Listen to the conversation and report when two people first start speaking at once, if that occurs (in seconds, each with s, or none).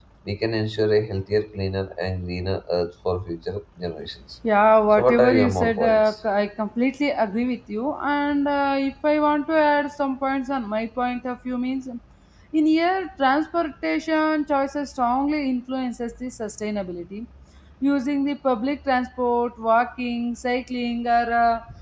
4.9 s